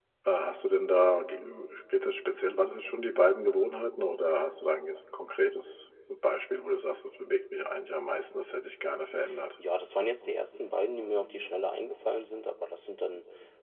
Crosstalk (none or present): none